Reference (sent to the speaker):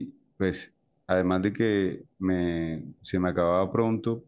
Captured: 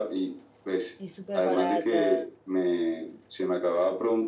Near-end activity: present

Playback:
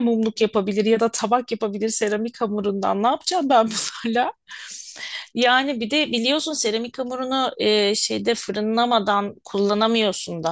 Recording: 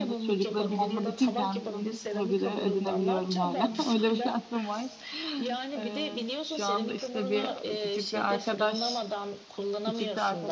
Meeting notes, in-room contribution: present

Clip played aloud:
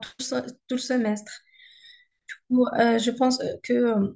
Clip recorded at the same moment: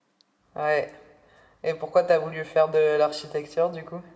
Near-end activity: present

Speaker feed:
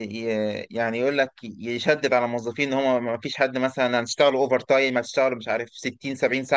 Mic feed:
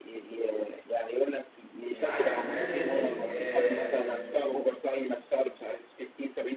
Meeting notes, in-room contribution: present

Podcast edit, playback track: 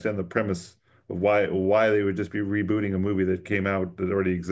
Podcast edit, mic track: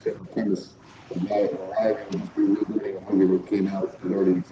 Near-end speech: none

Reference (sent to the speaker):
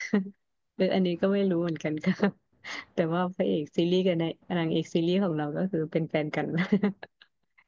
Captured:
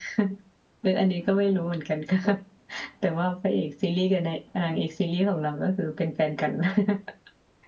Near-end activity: none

